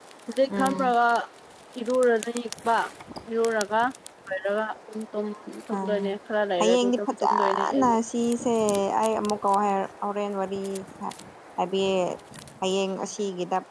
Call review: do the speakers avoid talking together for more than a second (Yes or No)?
No